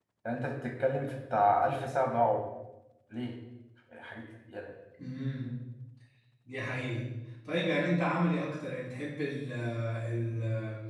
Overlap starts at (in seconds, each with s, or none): none